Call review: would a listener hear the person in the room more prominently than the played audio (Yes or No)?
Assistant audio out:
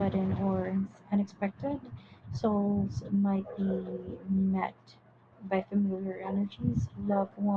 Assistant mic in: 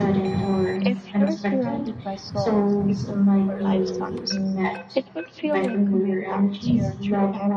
No